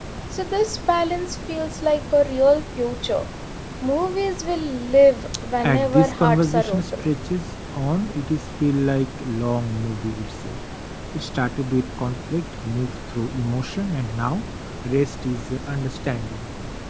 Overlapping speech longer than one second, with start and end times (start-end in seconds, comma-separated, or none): 5.6-7.0